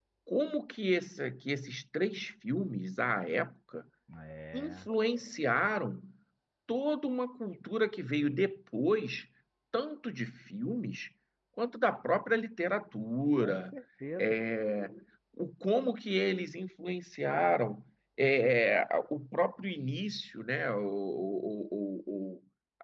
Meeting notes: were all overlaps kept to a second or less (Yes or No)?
Yes